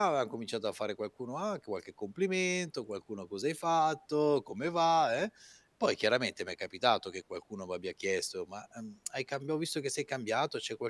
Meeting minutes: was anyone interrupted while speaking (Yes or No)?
No